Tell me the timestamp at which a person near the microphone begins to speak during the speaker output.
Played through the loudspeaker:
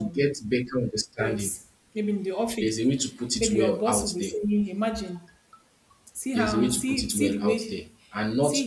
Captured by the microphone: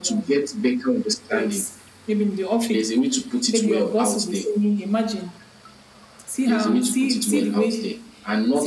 none

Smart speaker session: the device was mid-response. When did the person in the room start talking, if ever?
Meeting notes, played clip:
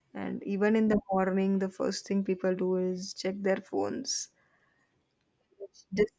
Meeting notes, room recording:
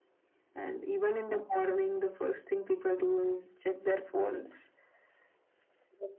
none

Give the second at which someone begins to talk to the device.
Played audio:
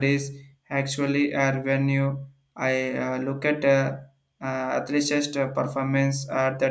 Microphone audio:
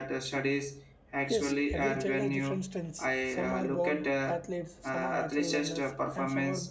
1.3 s

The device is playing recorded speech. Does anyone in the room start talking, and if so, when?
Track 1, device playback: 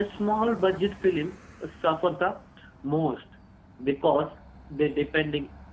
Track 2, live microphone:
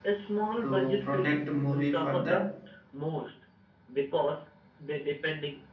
0.6 s

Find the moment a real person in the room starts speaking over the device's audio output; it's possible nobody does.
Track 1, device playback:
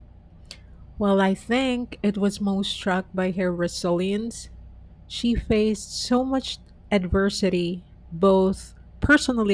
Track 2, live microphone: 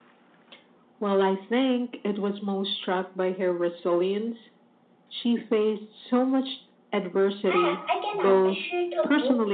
7.5 s

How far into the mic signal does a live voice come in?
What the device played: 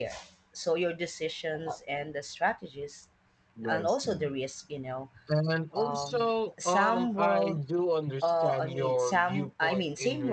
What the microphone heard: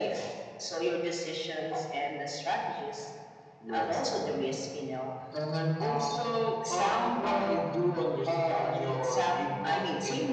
none

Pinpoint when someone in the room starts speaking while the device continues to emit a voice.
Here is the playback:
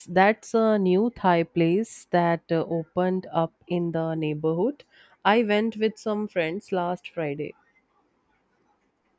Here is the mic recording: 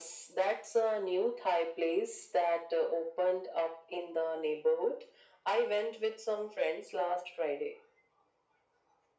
none

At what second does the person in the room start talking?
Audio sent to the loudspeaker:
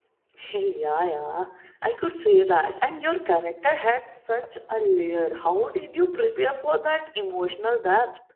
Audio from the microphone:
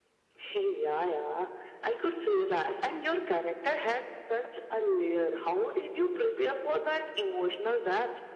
none

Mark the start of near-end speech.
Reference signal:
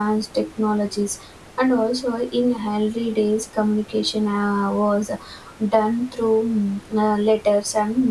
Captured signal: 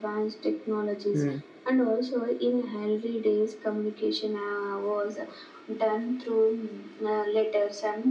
1.1 s

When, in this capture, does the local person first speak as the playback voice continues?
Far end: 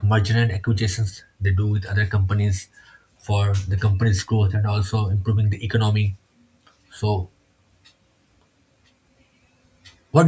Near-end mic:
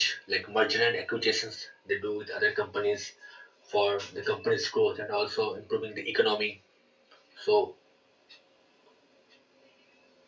none

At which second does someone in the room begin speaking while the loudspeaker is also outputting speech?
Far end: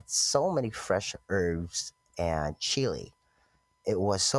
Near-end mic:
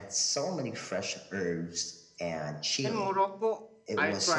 2.8 s

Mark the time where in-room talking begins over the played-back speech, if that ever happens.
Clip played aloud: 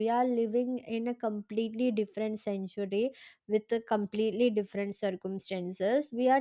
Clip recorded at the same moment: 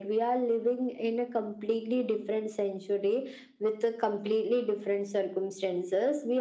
none

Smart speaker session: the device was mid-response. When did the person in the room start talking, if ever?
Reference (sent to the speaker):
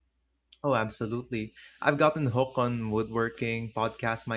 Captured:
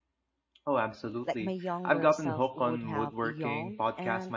1.2 s

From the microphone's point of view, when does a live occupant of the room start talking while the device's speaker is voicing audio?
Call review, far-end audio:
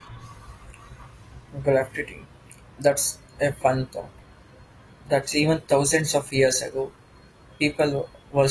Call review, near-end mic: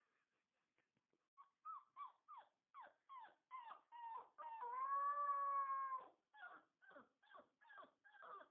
none

